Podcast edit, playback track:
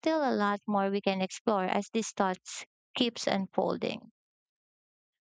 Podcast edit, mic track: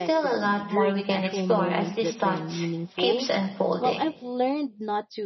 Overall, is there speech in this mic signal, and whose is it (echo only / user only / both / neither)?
both